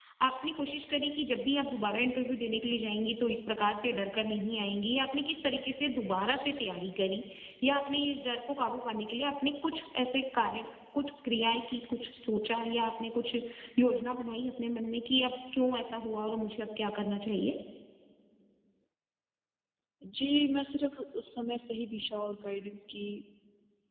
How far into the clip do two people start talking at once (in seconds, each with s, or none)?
none